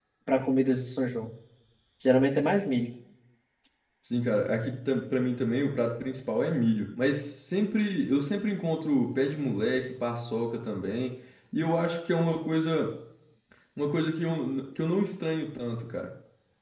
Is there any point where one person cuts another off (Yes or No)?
No